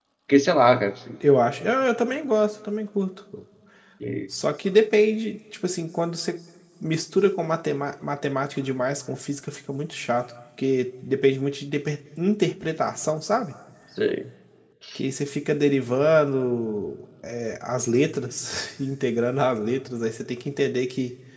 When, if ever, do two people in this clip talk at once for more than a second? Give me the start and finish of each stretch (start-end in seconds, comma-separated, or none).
none